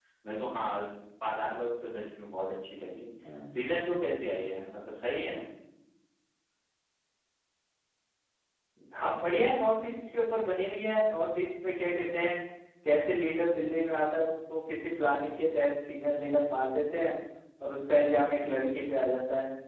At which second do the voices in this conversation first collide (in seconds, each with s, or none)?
none